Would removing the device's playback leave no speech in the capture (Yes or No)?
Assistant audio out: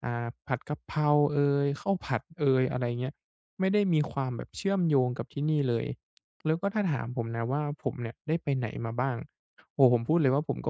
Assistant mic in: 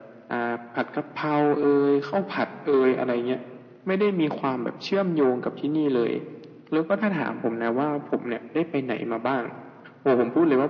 Yes